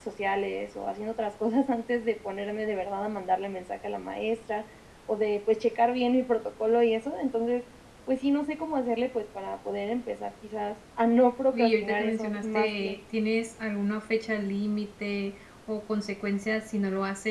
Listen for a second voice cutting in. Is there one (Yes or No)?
Yes